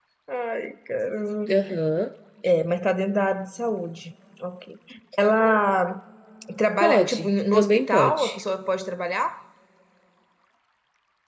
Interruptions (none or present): present